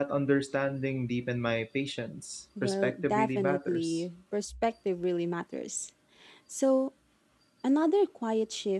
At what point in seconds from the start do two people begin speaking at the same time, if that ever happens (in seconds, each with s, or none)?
2.6 s